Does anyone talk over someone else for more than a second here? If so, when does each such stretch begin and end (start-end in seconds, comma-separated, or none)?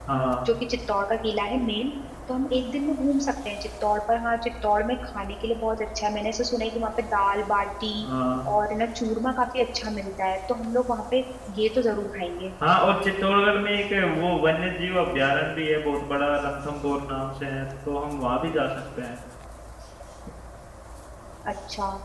none